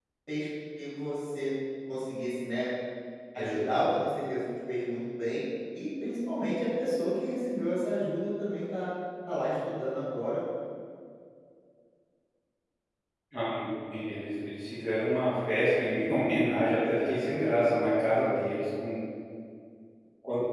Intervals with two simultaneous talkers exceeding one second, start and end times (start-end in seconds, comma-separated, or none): 16.9-18.2